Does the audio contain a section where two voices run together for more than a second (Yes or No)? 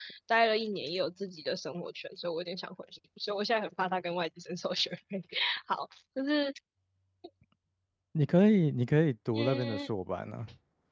No